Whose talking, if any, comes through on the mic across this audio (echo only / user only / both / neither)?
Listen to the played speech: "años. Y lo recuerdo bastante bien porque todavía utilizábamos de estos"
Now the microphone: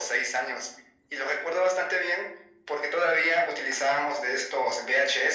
echo only